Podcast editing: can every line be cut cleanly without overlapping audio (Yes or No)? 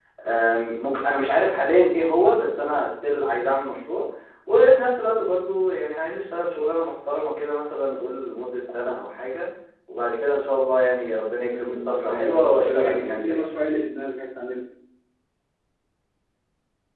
No